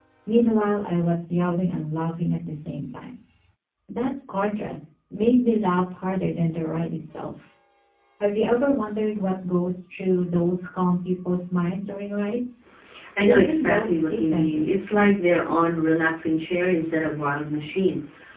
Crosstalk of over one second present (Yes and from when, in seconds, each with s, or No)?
Yes, from 13.2 s